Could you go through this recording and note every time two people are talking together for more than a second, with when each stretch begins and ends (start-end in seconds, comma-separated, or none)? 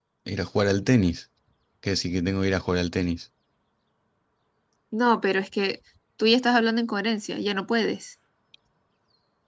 none